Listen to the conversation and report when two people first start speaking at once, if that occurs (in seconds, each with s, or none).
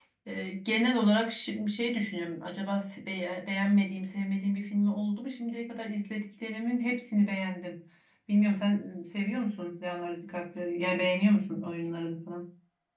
none